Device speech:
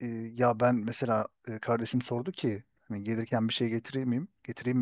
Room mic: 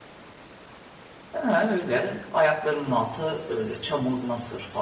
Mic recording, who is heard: user only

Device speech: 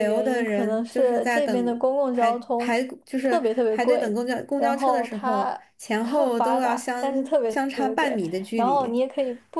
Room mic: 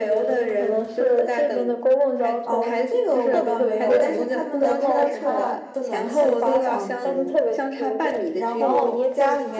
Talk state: both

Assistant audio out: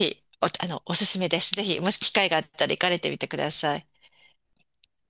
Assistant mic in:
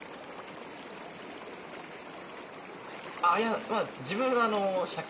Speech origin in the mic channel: user only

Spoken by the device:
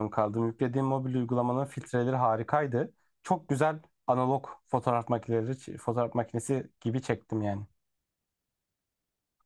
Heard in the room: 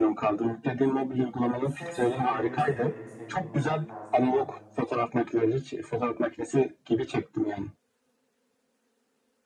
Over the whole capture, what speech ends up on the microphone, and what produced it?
both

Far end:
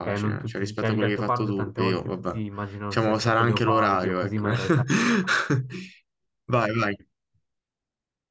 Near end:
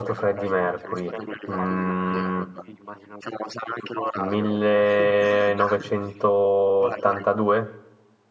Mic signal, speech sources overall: both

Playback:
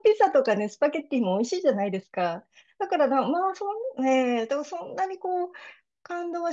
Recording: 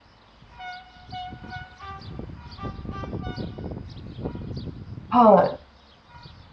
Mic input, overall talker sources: user only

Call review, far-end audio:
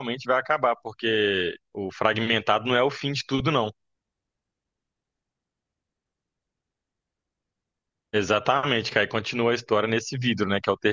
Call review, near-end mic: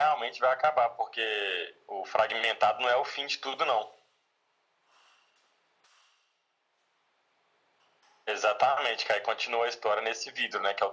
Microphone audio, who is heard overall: echo only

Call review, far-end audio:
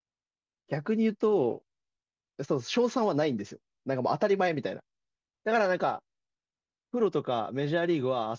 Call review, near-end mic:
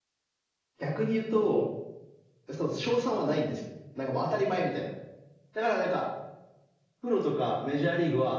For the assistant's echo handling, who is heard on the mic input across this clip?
echo only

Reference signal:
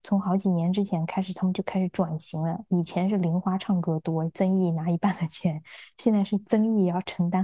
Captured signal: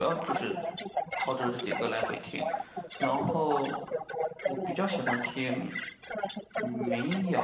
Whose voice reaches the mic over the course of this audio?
both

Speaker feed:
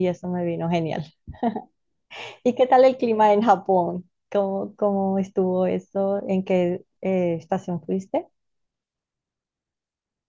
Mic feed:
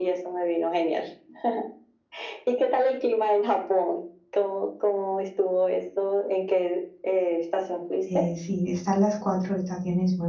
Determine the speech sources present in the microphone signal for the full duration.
both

